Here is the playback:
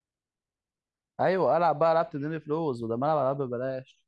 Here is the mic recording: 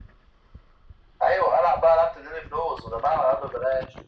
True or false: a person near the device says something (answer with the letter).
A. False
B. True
A